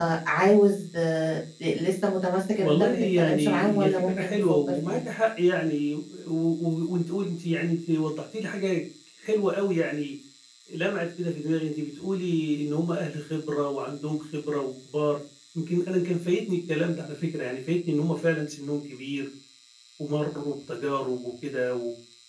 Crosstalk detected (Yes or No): Yes